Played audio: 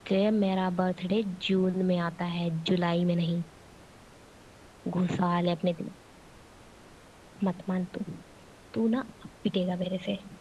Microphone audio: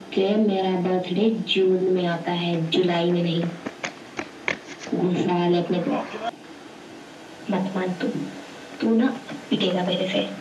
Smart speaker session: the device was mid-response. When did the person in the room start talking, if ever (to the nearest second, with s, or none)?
none